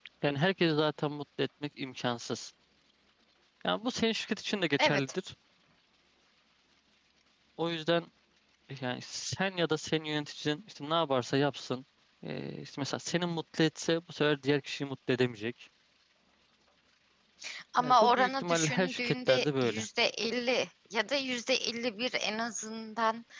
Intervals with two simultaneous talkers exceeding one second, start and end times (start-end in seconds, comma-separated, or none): 17.8-19.8